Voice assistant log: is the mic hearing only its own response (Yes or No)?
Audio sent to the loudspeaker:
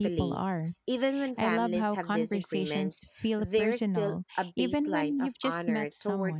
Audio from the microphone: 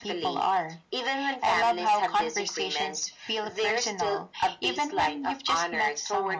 Yes